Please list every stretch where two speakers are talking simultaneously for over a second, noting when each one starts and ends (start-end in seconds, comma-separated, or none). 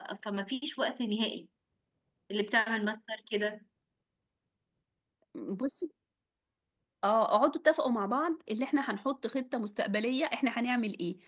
none